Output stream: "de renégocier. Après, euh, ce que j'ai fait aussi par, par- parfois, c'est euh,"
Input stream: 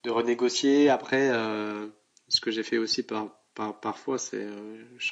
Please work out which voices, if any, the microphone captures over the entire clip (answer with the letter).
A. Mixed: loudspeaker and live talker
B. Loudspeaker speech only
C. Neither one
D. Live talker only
B